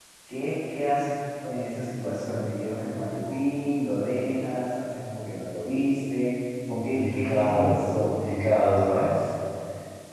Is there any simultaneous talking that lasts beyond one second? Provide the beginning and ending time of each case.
6.8-8.0

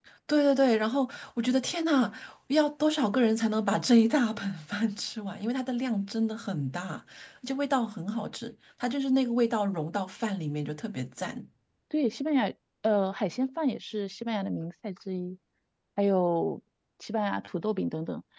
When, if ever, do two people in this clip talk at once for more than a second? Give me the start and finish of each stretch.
none

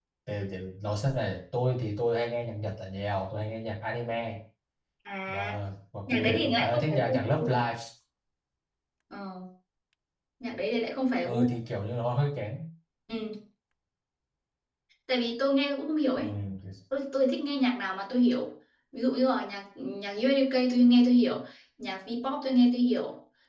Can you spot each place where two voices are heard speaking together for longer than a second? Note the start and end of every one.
6.1-7.5

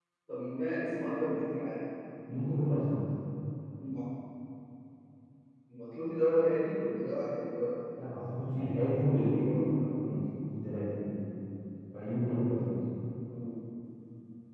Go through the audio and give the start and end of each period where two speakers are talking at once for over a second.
8.5-9.9

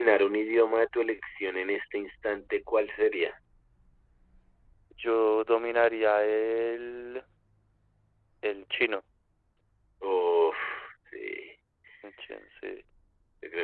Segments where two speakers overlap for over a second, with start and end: none

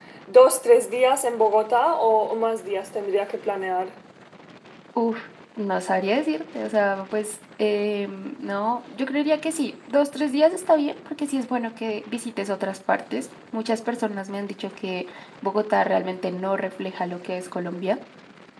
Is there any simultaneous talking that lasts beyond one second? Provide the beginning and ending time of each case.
none

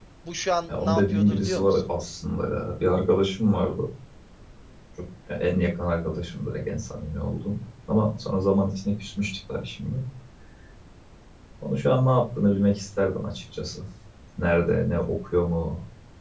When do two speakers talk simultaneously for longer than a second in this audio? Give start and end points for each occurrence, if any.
0.7-1.9

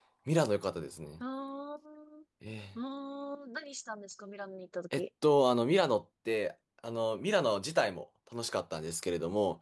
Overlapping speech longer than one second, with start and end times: none

